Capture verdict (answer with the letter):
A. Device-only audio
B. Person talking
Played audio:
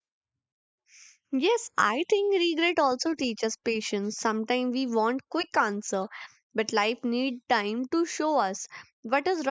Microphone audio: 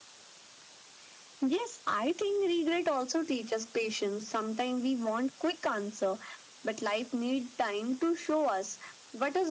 A